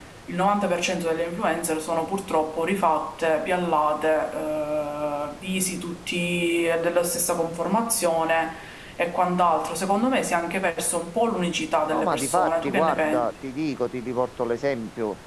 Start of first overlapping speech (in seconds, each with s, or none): 11.9 s